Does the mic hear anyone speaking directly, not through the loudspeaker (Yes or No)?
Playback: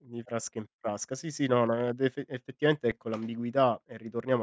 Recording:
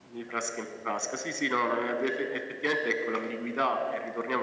No